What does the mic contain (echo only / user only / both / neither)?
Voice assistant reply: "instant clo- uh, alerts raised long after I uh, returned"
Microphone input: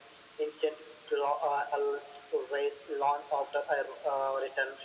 echo only